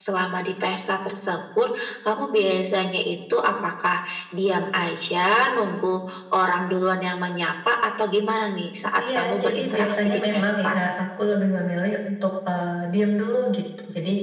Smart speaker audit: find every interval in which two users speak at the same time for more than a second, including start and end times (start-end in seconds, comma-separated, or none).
8.8-10.8